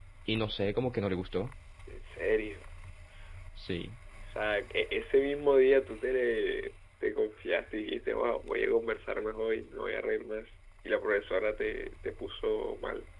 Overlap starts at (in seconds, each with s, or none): none